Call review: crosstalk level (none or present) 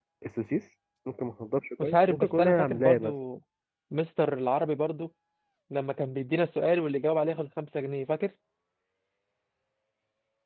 present